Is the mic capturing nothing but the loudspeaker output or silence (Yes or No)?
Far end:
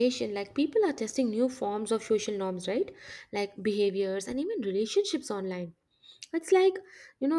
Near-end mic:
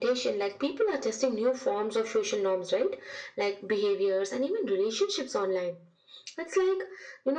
Yes